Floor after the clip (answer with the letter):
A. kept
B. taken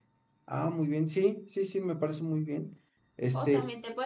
B